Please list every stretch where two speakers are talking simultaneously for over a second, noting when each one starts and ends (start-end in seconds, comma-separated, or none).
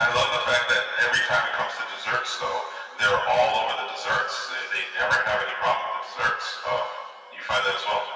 none